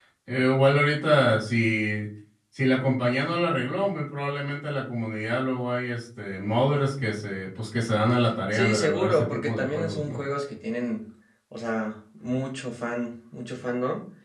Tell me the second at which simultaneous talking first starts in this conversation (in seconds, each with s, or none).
8.5 s